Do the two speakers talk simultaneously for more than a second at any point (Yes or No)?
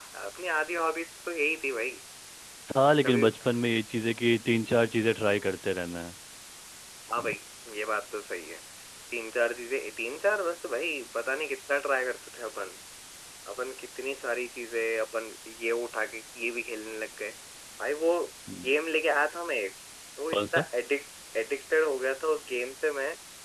No